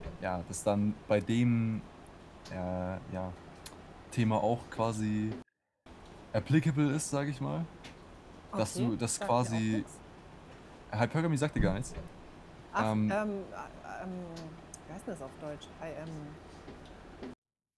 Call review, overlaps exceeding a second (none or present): present